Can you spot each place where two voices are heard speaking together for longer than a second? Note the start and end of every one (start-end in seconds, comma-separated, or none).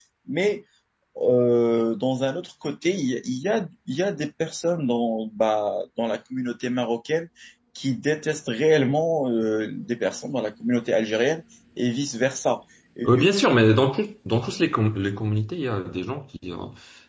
none